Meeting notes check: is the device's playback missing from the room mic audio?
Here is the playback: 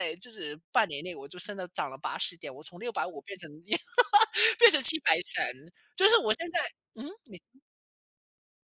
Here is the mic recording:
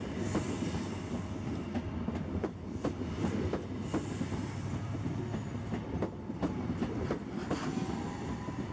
Yes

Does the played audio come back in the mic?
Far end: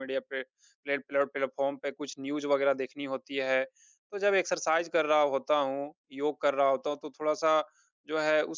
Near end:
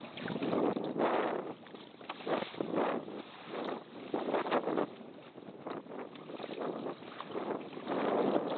No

